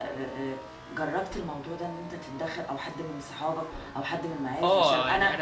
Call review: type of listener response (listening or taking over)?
taking over